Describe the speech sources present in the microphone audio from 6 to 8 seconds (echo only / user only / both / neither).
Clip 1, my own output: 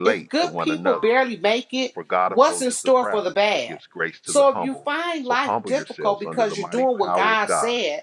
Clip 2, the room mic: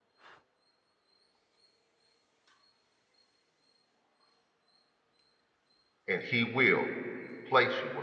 user only